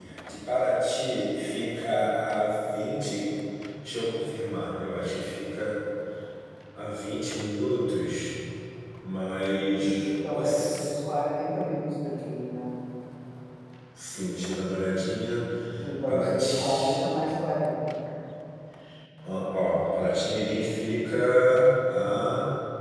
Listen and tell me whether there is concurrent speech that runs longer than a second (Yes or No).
Yes